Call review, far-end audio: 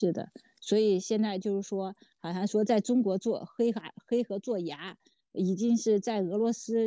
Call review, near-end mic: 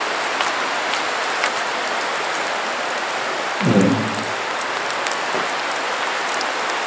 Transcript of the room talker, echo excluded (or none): 嗯